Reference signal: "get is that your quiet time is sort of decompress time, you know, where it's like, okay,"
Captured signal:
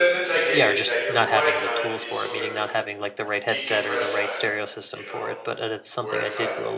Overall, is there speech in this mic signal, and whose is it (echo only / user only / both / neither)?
both